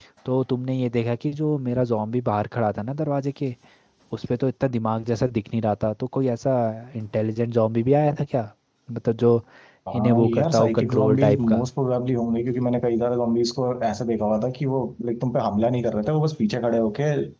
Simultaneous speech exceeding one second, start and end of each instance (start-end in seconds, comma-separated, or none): 9.9-11.6